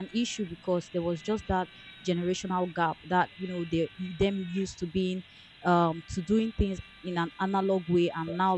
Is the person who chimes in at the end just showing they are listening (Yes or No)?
Yes